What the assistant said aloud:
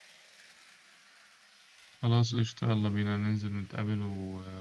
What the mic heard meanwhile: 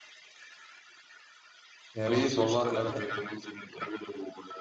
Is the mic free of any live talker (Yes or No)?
No